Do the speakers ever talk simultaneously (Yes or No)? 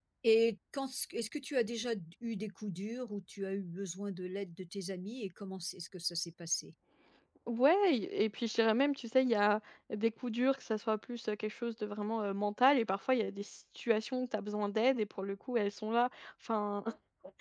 No